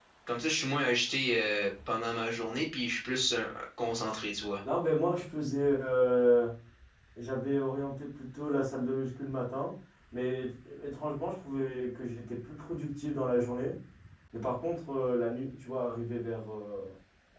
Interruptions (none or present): none